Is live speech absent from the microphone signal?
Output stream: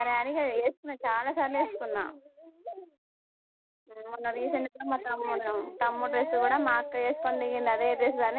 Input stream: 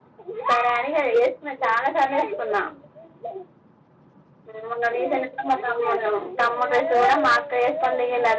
Yes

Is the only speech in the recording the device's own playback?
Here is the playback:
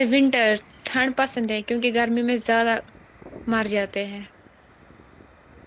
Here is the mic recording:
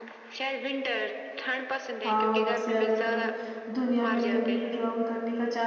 No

